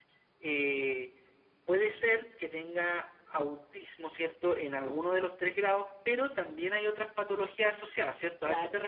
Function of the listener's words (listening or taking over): taking over